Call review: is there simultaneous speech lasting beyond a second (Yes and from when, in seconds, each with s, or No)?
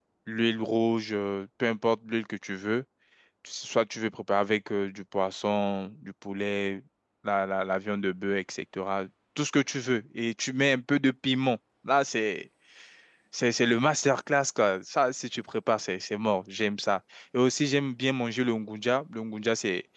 No